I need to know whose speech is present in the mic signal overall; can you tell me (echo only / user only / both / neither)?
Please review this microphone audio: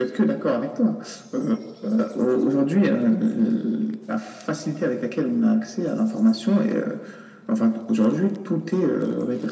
echo only